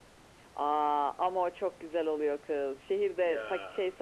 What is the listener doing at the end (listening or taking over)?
listening